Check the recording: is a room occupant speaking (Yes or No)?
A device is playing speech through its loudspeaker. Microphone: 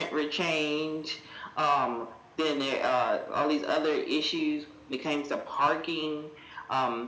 No